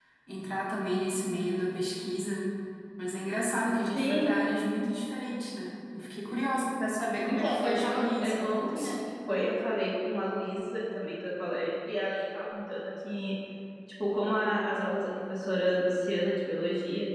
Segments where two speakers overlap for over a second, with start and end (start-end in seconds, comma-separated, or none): 7.3-8.9